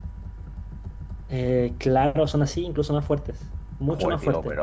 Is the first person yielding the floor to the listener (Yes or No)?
Yes